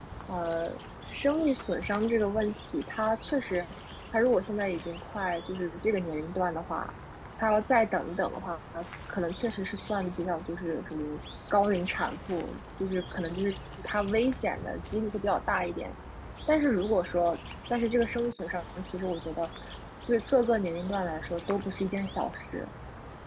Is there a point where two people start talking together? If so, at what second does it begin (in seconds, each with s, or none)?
none